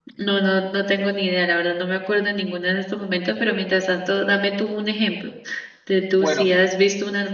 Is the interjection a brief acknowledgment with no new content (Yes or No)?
Yes